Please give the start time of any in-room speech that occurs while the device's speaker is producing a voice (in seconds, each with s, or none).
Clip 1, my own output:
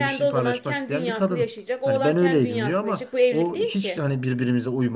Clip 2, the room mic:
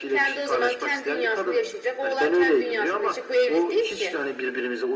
none